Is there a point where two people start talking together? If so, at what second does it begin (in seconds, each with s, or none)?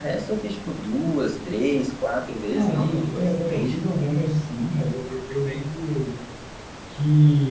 2.5 s